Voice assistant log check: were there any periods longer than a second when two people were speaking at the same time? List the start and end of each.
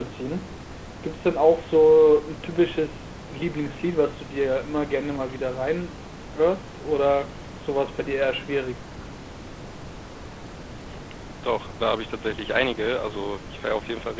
none

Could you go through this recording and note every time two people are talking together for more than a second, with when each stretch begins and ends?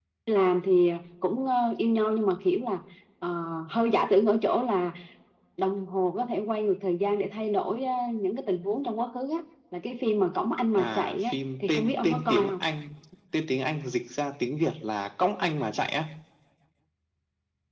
10.8-12.6

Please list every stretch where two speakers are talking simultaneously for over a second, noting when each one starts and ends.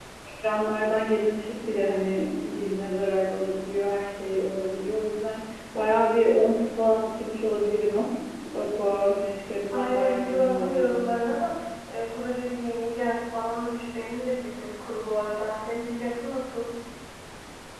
9.7-11.1

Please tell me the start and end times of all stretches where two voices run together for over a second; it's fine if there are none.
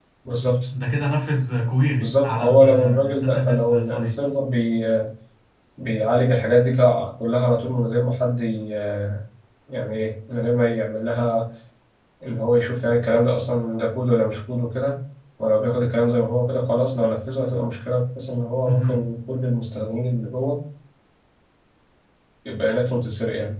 2.0-4.2

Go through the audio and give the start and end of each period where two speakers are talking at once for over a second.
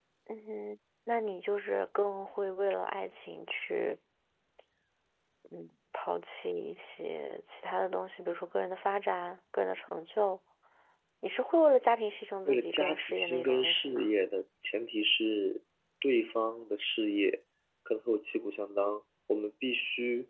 12.5-14.1

